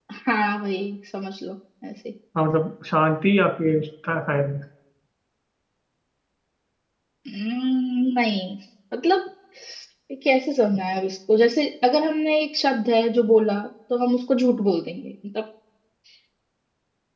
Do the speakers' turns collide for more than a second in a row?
No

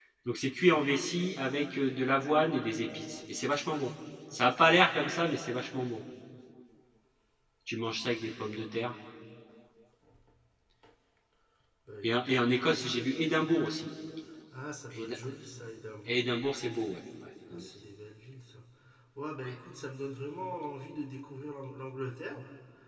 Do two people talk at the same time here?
Yes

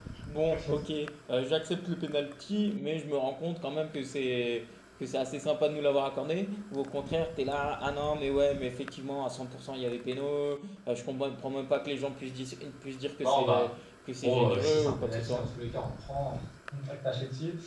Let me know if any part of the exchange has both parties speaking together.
Yes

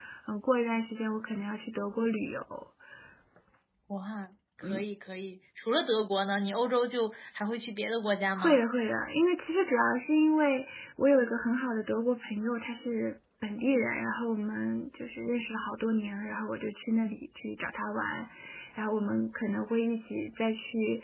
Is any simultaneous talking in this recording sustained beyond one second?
No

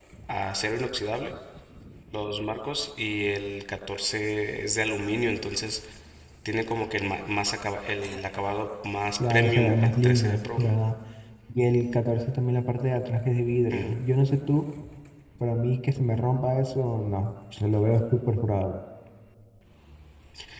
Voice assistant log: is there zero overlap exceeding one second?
No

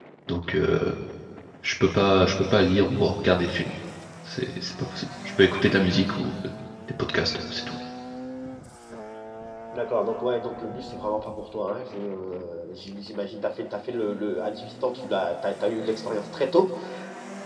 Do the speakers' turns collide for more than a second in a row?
No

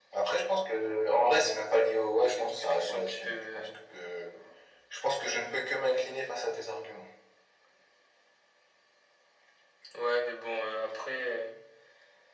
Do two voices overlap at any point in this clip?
Yes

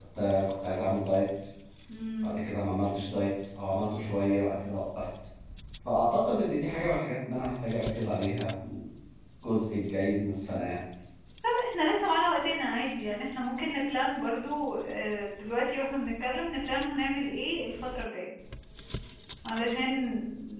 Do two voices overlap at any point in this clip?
No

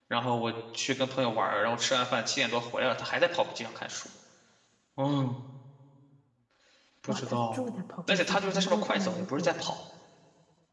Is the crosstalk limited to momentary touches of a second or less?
No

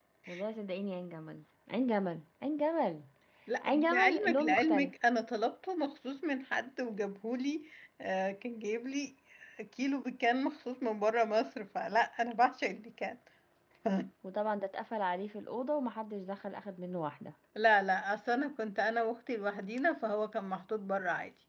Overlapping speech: Yes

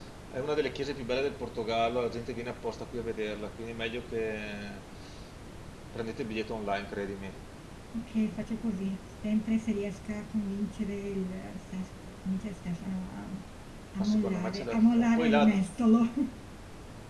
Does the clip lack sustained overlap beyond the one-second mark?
No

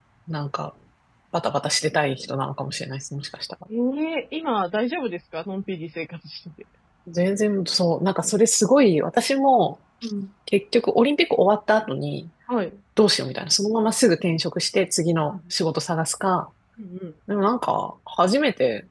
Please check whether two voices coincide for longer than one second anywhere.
No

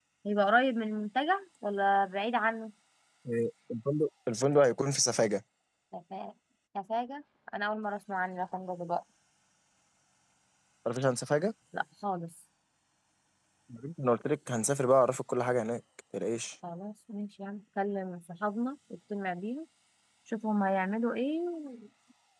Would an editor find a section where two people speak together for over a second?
No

